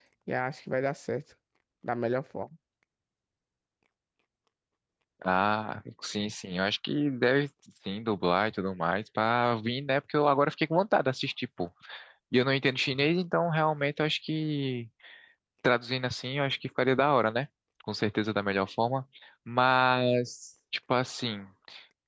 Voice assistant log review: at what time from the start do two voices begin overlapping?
none

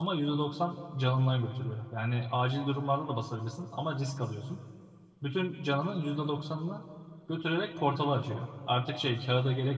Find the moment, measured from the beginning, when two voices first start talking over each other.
none

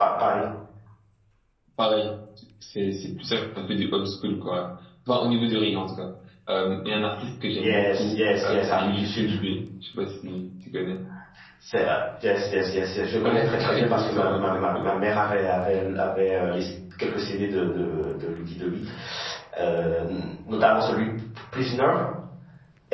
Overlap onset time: 8 s

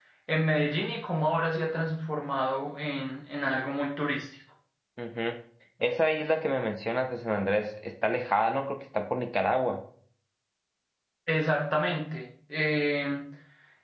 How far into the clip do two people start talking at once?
none

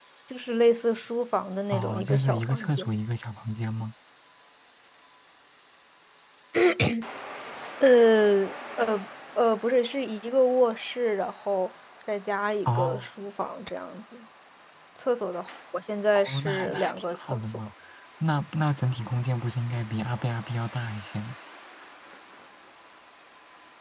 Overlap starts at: 2 s

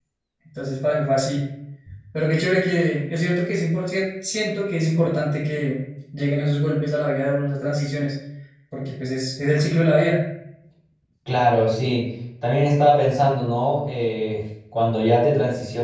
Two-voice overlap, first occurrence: none

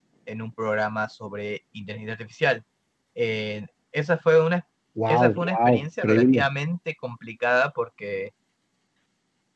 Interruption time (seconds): 5 s

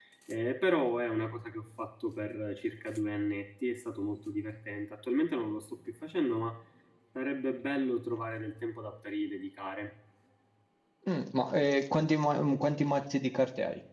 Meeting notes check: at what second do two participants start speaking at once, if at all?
none

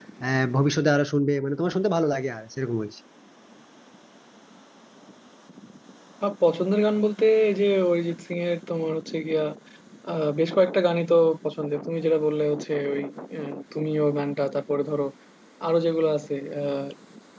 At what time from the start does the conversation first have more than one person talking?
none

